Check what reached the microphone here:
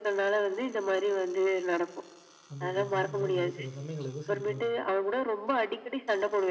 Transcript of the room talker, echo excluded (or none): நம்ம இப்படி இருக்கோம். ஆனா வந்து சில சமயங்கள்ல யோசிக்க தோணும்.